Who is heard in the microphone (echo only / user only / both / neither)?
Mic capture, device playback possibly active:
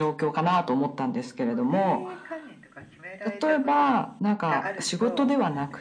both